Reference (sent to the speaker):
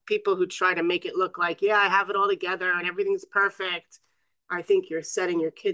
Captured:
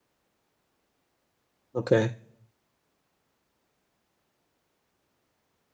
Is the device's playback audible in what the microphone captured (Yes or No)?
No